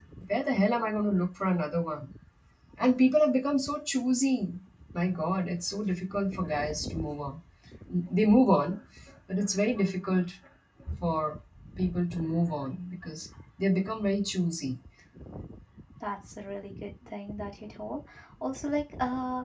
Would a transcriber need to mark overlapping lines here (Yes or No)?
No